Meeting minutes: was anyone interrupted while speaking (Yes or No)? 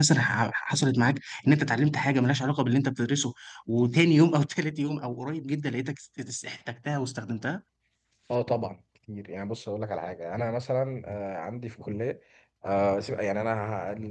No